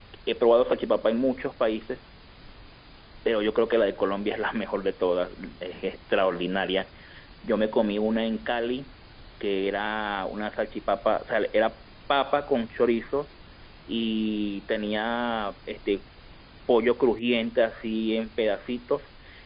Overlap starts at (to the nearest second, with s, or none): none